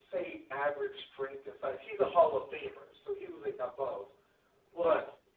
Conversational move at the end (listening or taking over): listening